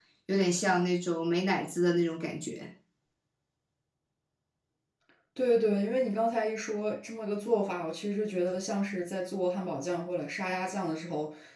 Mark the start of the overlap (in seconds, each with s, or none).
none